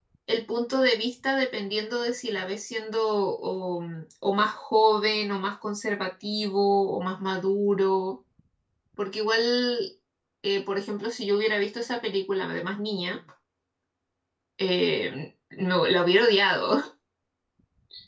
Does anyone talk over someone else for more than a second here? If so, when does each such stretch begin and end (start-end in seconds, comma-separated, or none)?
none